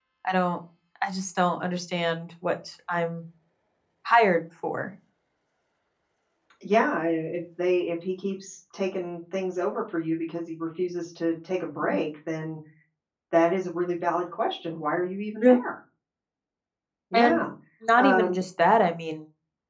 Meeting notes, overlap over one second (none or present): none